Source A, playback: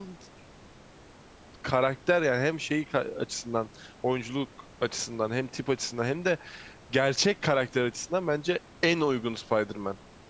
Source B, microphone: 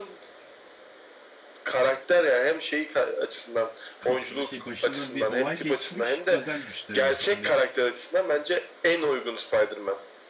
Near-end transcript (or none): kaf- şey başında bir olay geçmiş özel güçleri var. Hani